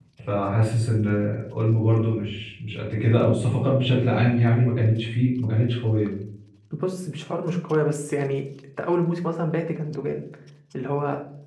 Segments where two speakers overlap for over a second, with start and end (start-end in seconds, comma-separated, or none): none